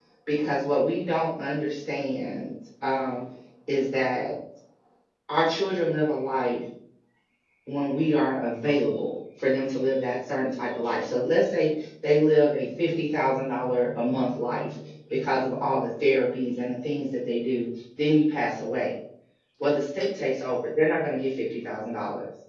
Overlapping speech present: No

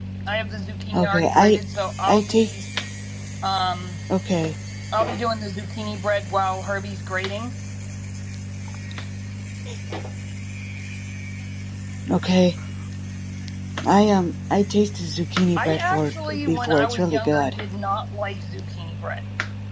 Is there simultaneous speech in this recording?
Yes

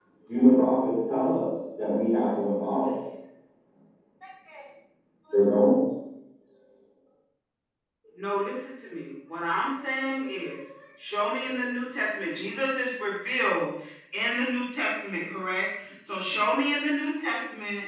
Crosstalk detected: No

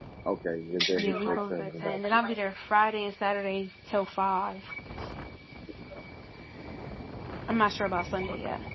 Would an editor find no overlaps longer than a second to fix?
No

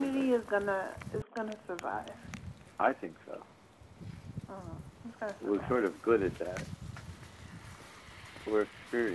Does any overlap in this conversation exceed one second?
No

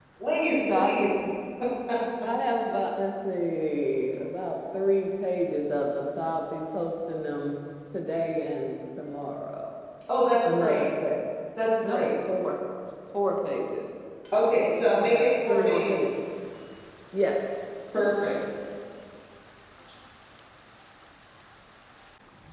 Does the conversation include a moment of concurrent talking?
Yes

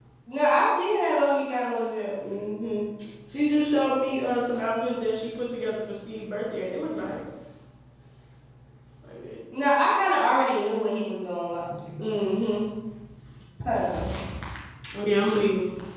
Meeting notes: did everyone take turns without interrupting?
Yes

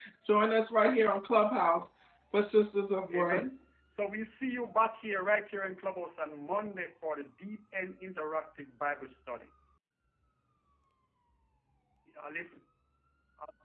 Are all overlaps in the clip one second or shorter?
Yes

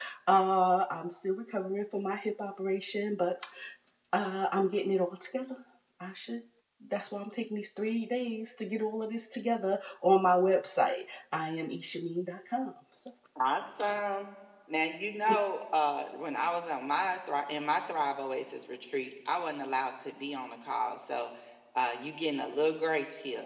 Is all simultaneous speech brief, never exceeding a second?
Yes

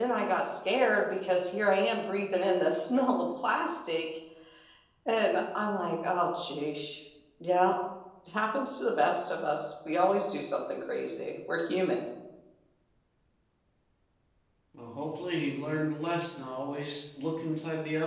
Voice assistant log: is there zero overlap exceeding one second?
Yes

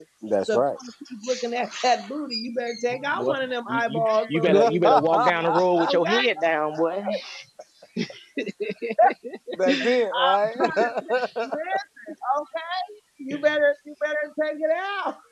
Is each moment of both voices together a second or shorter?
No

